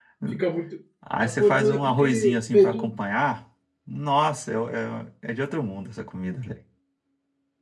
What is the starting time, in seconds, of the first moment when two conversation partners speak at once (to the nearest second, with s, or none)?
1 s